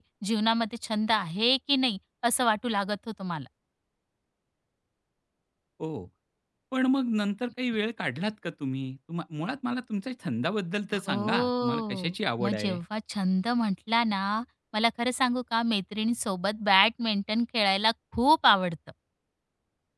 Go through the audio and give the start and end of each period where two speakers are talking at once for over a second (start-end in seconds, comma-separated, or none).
10.9-12.8